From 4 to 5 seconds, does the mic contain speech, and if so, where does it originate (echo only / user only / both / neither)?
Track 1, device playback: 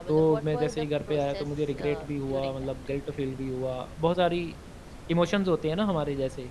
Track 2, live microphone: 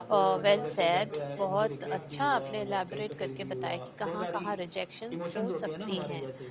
both